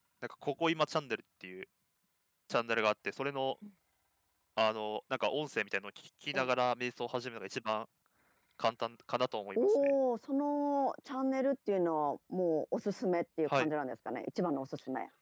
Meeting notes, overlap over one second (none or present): none